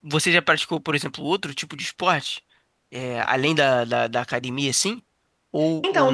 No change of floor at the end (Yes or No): No